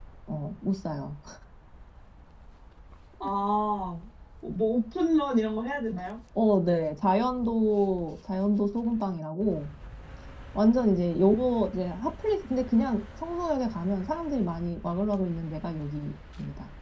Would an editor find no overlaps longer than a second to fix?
Yes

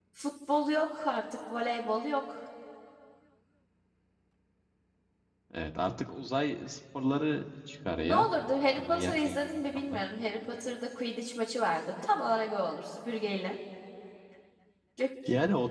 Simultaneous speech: Yes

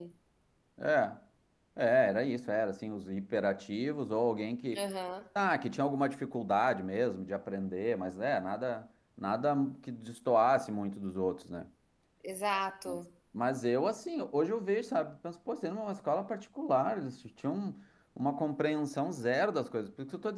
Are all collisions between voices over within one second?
Yes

